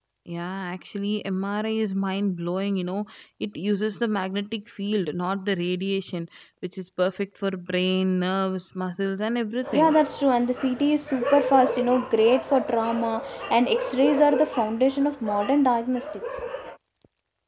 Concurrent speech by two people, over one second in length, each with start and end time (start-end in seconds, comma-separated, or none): none